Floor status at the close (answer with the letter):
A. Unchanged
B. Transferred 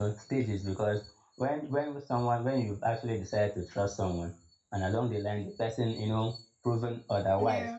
A